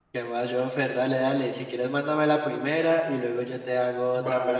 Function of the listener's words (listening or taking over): taking over